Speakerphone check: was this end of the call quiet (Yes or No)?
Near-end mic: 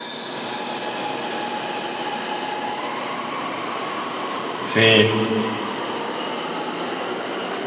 No